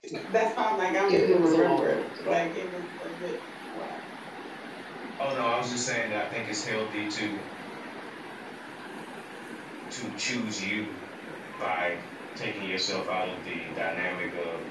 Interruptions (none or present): present